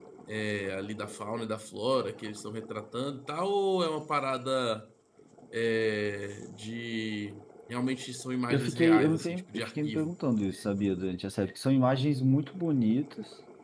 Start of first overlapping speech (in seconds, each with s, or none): 8.5 s